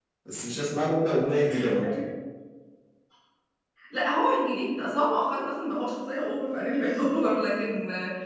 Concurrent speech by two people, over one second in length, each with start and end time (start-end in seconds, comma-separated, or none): none